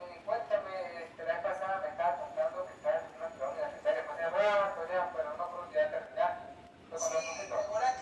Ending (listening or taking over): taking over